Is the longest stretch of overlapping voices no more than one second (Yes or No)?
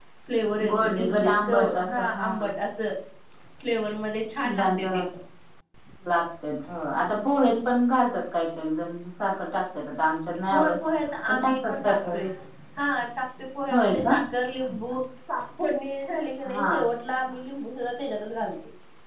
No